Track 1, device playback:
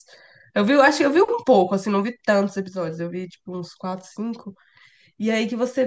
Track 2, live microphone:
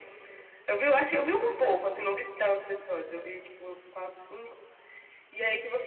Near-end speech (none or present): none